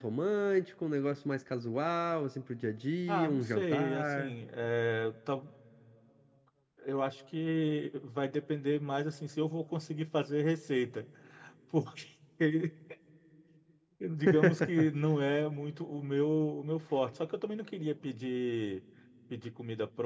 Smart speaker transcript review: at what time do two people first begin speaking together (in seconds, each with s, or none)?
3.1 s